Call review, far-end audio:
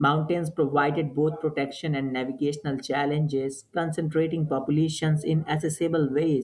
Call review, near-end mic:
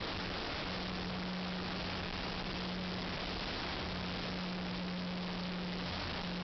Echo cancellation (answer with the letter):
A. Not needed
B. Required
A